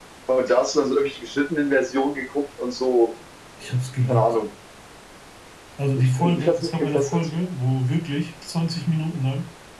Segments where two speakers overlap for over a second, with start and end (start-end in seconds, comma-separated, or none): 6.0-7.3